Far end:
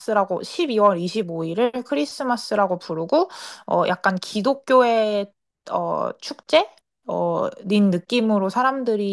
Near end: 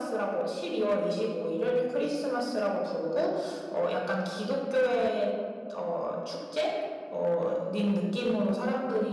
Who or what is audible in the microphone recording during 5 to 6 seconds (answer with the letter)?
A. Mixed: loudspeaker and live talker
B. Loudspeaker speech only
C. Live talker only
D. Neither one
B